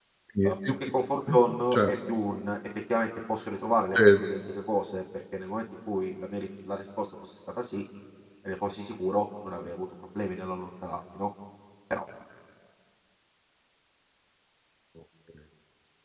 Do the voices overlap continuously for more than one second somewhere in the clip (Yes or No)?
No